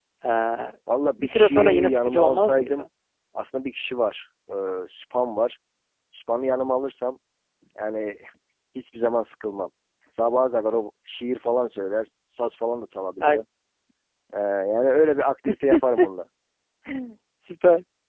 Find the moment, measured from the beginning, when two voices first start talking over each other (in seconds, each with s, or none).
1.2 s